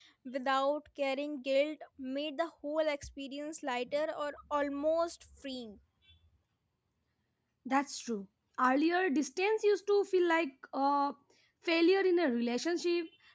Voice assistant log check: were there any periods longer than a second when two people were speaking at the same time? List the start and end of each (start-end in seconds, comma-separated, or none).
none